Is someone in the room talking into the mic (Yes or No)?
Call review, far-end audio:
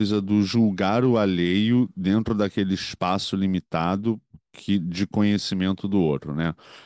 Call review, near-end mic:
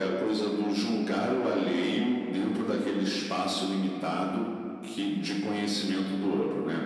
No